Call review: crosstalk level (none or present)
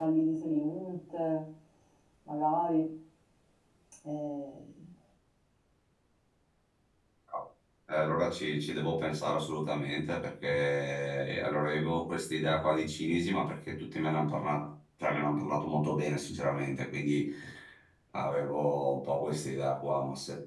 none